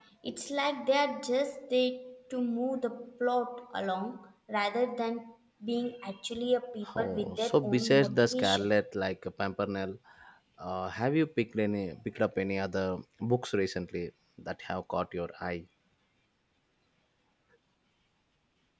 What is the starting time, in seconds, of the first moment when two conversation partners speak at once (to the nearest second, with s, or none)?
7 s